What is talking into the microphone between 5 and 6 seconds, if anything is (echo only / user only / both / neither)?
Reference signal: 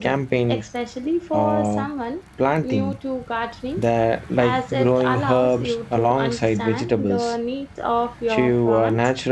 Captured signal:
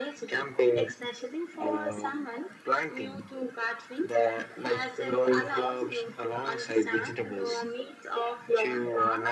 echo only